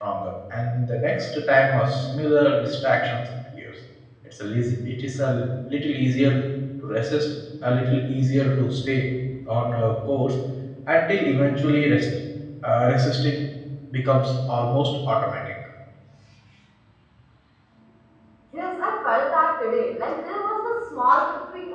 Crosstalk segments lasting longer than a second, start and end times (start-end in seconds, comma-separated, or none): none